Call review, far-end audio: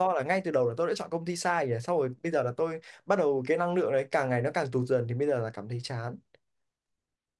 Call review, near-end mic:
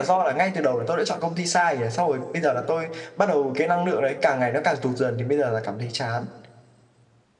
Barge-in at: none

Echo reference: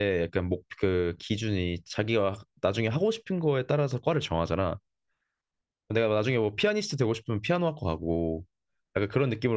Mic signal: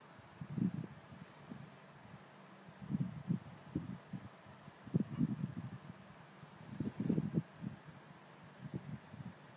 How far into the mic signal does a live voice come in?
none

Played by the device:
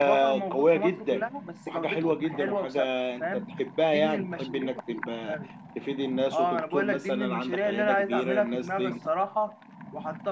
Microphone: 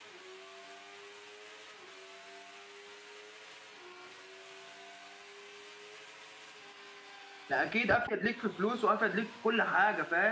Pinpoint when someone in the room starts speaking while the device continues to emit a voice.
7.5 s

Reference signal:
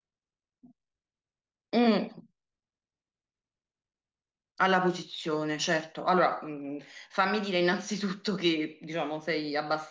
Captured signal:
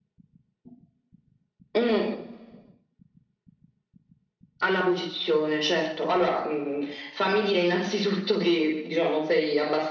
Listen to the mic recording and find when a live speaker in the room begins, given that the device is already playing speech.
none

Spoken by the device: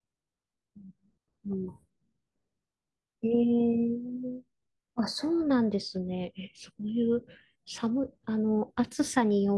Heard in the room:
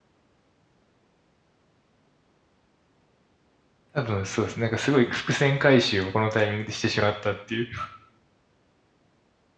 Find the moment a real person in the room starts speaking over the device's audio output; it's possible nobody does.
3.9 s

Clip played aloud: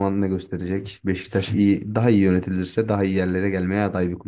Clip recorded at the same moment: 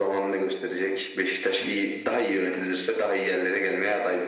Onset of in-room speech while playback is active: none

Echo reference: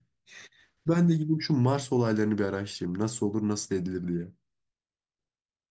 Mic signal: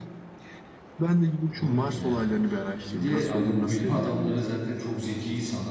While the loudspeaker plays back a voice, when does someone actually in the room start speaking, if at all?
1.5 s

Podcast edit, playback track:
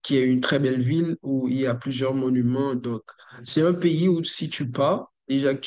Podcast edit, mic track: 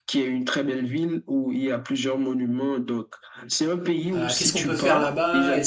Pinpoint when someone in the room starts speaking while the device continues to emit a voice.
4.2 s

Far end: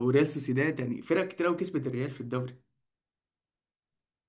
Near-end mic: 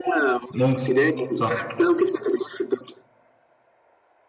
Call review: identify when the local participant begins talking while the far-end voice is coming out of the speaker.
0.5 s

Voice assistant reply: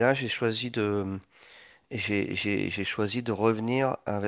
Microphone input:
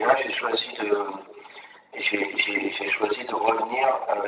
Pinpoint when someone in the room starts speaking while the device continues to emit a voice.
none

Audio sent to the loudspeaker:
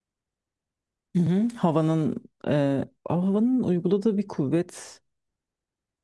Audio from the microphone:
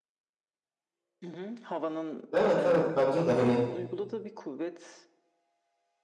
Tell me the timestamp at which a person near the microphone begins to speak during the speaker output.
2.3 s

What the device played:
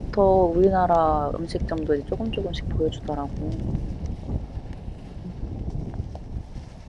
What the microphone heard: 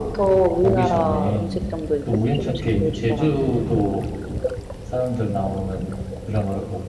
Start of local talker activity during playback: 0.6 s

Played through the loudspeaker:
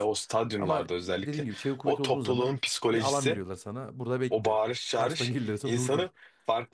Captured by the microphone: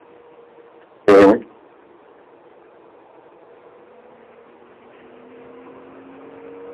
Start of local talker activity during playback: 1.1 s

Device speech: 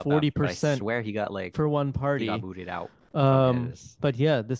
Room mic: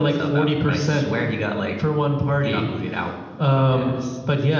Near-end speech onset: none

